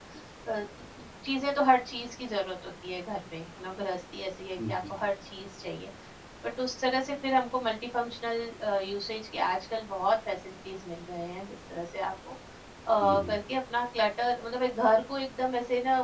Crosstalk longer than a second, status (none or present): none